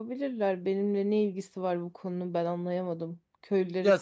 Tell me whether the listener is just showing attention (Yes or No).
No